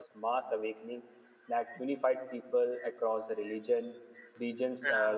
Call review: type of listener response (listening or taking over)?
listening